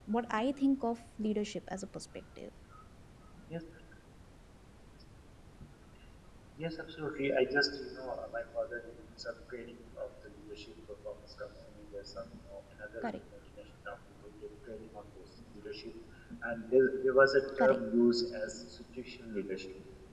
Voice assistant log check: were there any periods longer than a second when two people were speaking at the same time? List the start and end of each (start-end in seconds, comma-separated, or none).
none